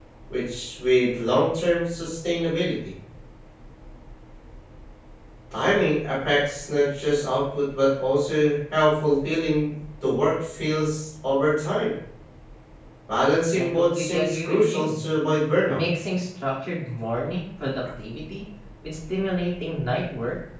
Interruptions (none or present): present